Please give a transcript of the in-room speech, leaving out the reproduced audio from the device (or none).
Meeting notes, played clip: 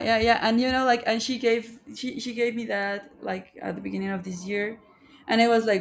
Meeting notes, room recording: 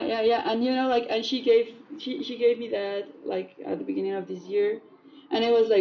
none